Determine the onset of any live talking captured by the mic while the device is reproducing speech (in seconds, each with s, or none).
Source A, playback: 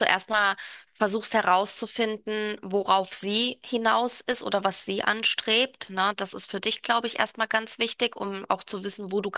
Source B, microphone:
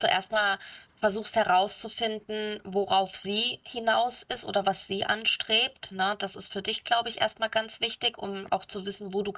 none